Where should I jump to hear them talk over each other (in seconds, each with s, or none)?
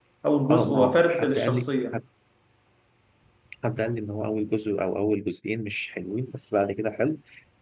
0.5 s